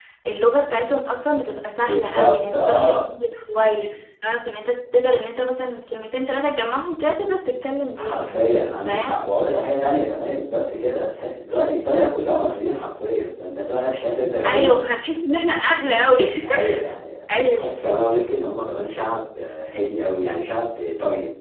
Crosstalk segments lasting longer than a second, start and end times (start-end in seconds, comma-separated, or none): 1.8-3.1